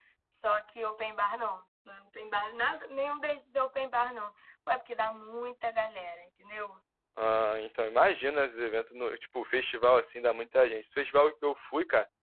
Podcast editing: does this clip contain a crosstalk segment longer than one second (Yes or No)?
No